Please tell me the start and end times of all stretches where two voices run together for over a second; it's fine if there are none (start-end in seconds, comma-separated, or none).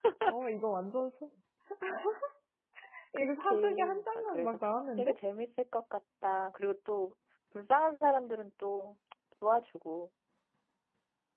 3.2-4.6